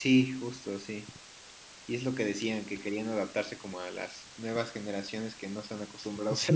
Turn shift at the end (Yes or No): Yes